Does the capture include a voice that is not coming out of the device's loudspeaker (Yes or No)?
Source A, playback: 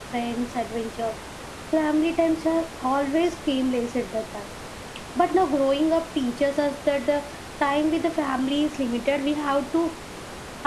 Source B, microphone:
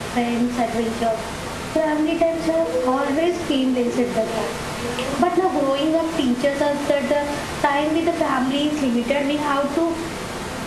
Yes